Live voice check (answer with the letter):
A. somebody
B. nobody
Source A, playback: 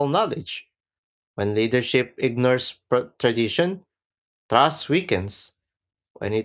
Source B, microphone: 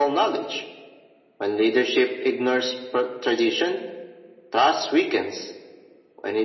B